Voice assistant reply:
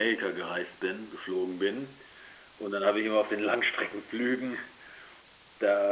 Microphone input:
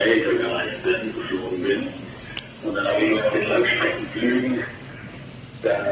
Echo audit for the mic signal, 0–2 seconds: echo only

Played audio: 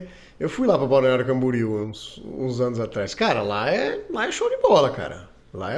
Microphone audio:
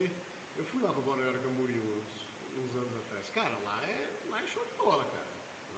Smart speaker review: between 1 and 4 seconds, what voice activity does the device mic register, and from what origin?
echo only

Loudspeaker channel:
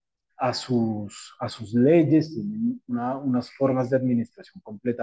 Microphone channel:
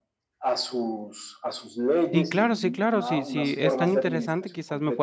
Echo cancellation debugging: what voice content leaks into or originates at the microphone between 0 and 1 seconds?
echo only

